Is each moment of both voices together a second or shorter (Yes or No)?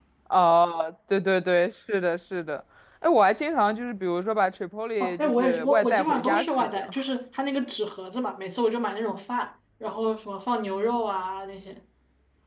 No